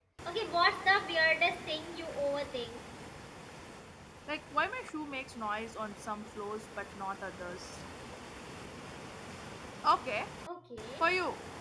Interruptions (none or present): none